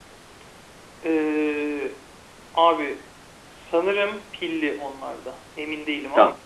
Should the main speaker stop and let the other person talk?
Yes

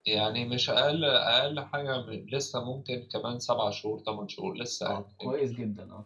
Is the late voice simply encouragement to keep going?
No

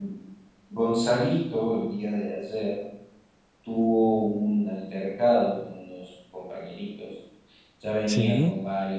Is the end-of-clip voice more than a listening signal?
No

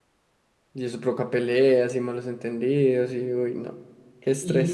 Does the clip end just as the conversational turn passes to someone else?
Yes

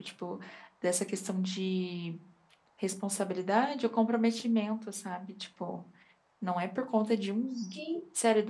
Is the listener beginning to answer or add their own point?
No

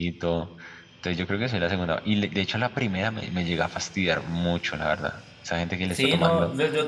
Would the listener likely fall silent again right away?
No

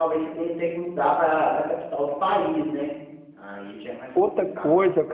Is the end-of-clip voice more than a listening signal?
Yes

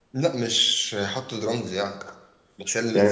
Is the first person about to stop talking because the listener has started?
Yes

